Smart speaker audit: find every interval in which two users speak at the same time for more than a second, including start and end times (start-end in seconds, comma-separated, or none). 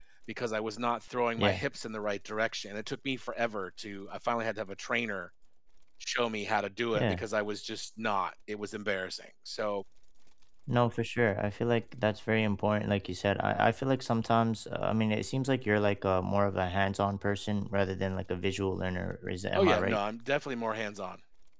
none